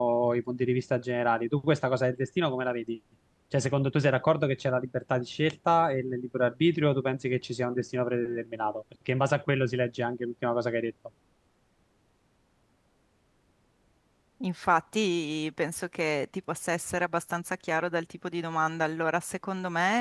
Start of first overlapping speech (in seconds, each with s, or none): none